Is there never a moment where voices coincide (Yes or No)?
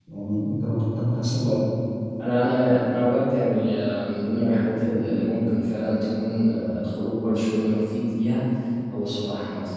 Yes